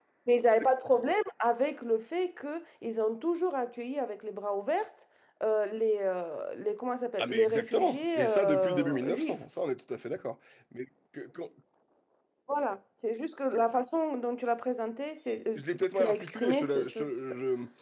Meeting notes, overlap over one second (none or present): present